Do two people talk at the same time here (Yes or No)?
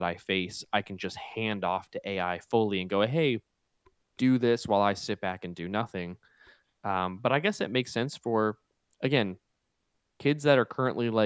No